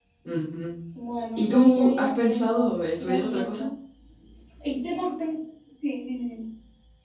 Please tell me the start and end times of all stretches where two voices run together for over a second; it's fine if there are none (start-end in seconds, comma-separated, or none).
1.4-3.6